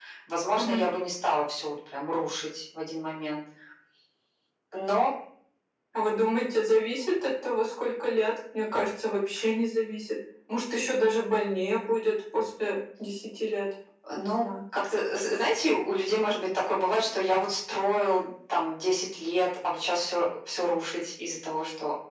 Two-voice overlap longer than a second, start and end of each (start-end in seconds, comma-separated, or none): none